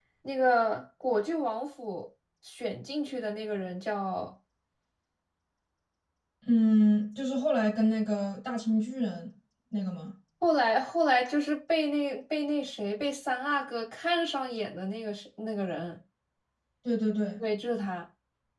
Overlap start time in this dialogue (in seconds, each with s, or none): none